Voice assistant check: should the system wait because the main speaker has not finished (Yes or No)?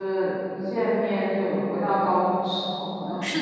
No